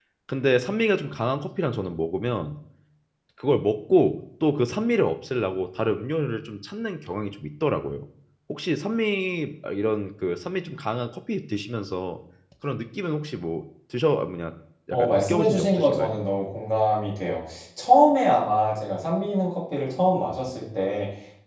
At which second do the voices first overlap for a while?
14.9 s

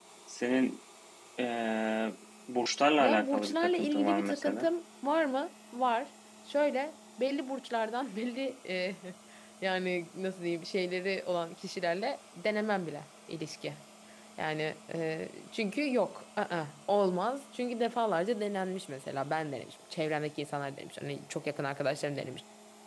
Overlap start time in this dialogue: 3.0 s

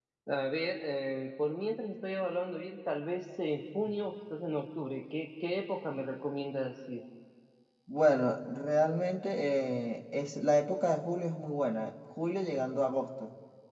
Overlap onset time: none

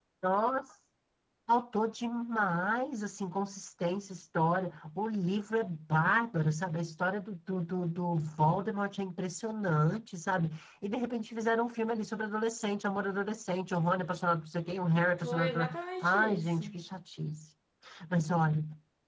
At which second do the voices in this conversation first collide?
15.2 s

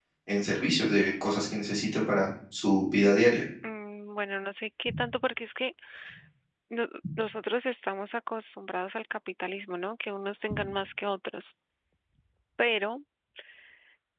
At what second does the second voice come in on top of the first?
none

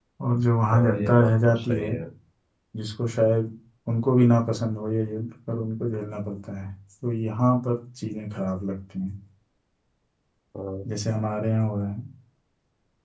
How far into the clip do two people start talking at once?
0.7 s

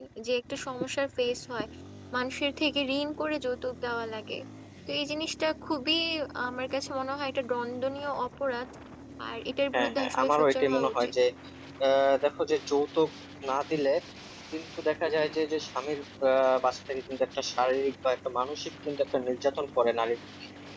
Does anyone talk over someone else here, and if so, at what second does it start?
9.7 s

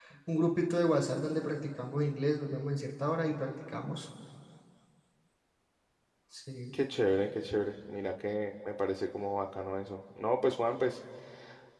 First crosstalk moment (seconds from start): none

